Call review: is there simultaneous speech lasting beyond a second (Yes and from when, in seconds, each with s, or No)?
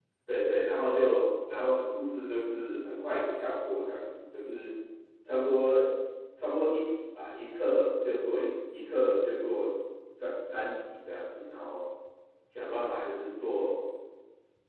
No